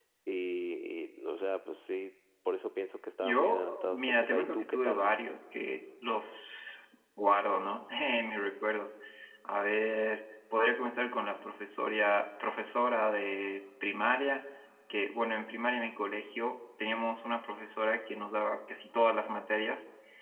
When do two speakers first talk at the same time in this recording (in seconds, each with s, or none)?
3.2 s